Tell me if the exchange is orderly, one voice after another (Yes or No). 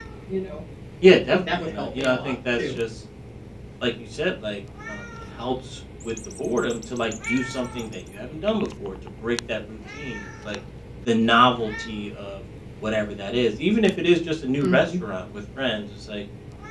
No